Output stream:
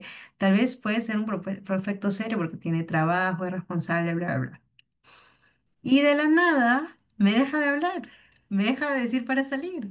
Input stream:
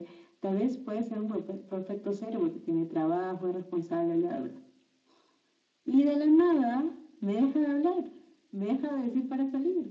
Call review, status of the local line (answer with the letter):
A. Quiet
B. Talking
A